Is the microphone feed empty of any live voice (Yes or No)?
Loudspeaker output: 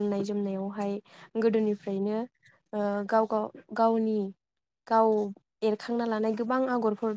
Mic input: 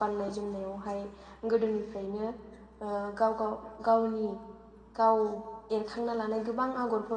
Yes